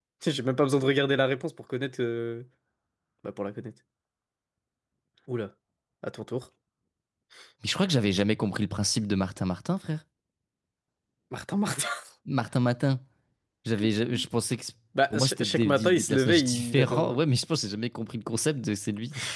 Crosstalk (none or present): present